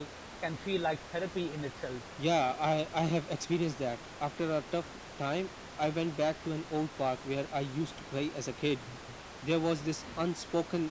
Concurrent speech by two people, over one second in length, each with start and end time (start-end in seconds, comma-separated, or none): none